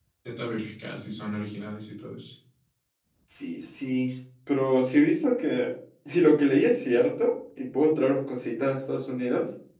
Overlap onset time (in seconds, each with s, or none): none